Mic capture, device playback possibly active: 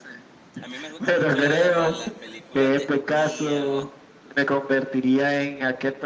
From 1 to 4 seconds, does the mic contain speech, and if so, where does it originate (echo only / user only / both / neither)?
both